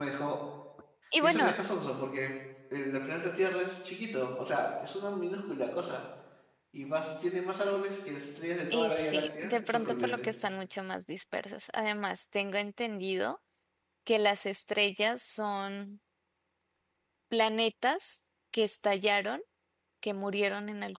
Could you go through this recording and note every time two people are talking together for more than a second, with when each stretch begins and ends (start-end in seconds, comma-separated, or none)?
8.7-10.3